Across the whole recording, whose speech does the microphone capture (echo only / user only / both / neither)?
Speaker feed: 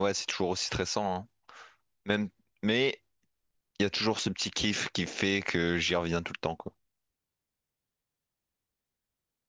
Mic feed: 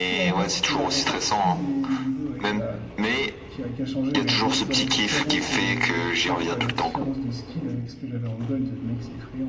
both